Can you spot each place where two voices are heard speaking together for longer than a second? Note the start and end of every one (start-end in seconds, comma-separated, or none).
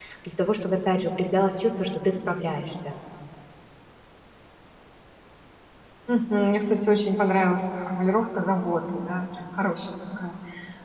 none